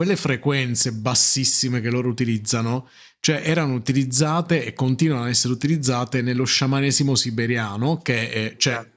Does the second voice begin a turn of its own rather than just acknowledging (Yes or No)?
No